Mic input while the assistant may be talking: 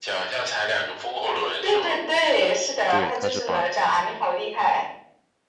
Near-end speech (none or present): present